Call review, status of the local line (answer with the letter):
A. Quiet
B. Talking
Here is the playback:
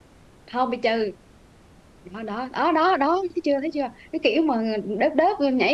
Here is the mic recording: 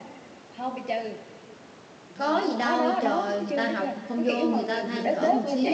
B